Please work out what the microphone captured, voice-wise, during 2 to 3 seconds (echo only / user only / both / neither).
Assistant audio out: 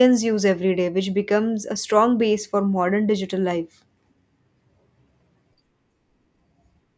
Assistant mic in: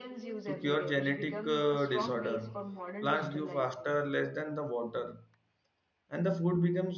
both